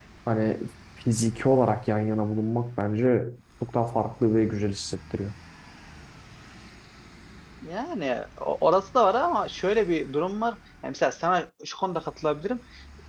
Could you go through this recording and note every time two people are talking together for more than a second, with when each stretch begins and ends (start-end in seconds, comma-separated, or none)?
none